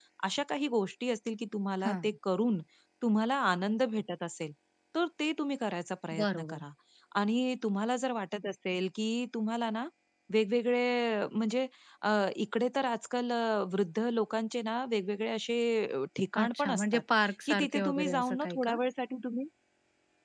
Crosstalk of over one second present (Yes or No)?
Yes